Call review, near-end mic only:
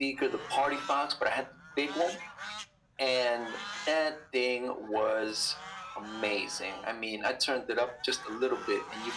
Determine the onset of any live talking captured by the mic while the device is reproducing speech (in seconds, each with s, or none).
none